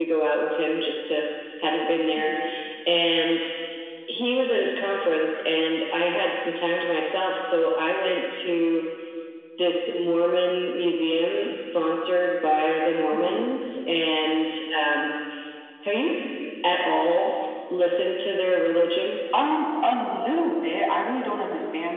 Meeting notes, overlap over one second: none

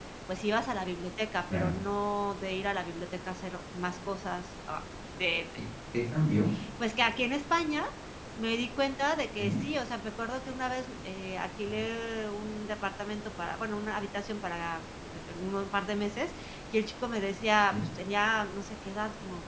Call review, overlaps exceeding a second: none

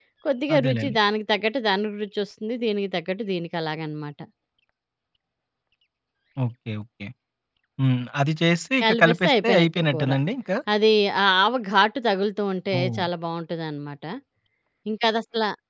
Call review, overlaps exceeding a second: present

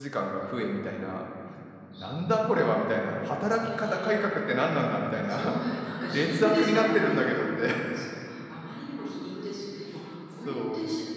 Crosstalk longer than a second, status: present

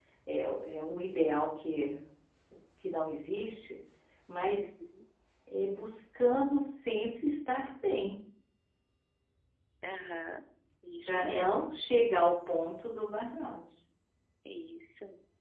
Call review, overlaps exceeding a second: none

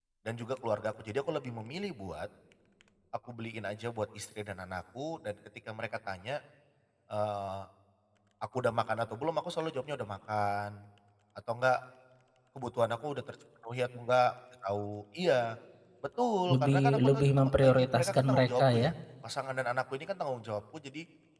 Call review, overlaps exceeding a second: present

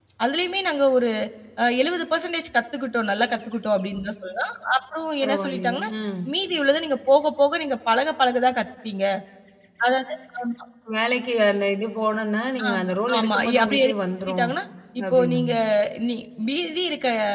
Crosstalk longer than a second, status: present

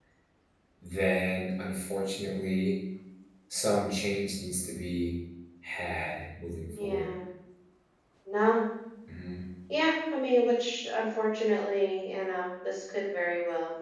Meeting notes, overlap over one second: none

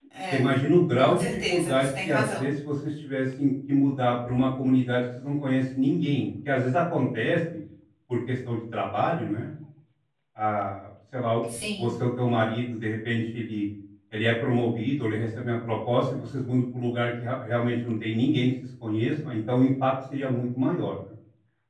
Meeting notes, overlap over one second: present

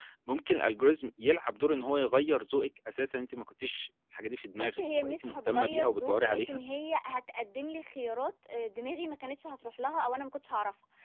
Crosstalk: present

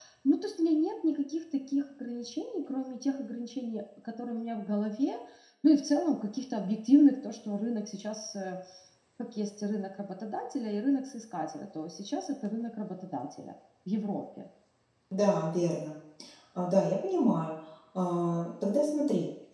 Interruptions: none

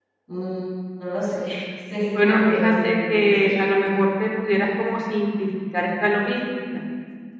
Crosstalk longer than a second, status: present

